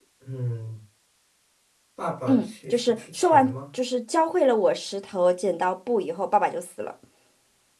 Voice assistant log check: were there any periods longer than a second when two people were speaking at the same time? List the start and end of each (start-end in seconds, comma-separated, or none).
2.3-3.5